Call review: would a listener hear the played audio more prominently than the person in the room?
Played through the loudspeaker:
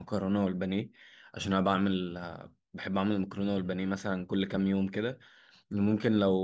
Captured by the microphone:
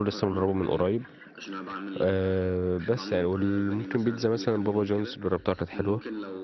No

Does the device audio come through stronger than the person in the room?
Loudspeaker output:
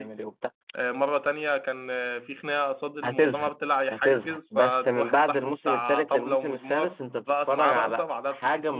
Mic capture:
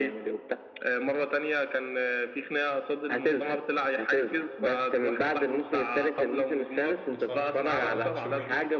Yes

